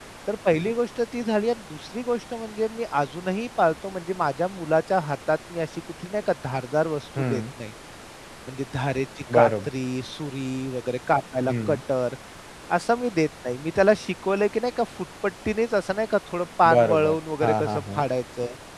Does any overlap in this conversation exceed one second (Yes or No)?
Yes